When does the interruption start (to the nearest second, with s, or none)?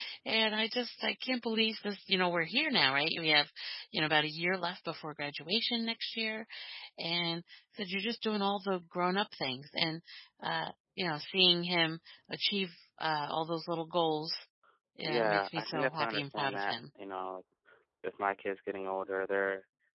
15 s